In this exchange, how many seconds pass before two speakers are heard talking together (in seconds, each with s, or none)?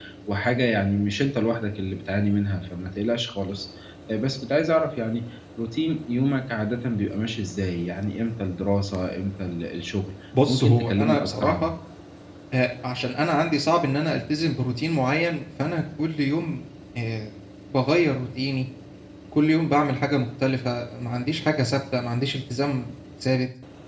10.3 s